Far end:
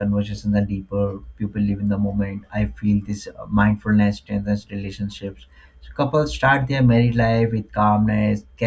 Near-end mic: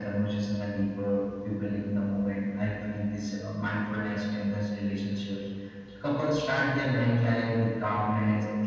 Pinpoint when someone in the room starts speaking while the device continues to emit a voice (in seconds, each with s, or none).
none